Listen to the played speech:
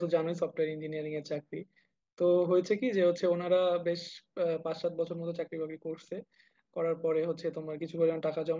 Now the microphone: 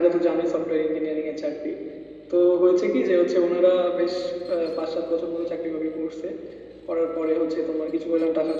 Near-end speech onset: none

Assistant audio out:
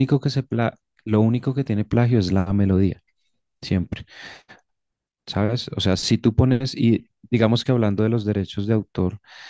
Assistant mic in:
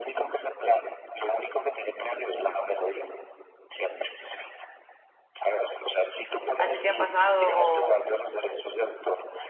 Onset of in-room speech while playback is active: 6.6 s

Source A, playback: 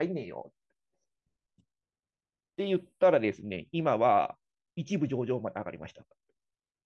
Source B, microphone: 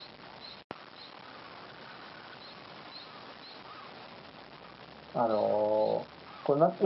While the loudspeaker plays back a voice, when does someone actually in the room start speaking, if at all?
5.1 s

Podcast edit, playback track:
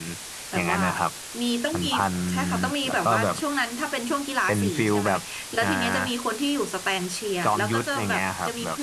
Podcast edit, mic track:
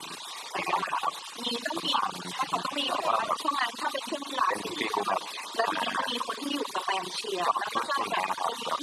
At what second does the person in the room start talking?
2.8 s

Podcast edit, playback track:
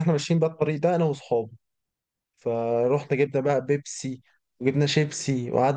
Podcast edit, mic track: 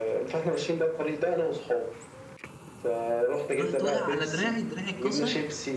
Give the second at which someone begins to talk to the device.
3.6 s

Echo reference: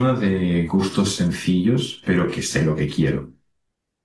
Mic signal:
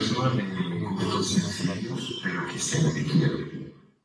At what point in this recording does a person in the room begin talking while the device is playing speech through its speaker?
0.7 s

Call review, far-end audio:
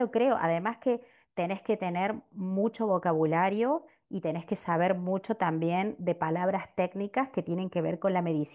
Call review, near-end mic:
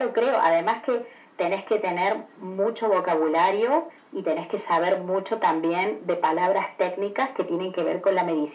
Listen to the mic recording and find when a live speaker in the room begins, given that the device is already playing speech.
none

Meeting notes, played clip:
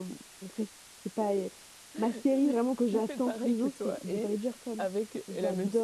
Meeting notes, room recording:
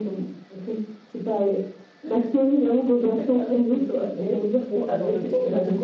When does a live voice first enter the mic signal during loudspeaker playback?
4.6 s

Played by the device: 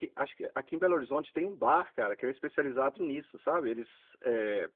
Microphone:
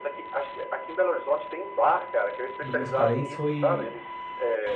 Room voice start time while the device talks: 2.6 s

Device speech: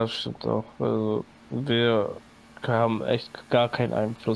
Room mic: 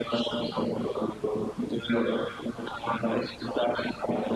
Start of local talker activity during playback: none

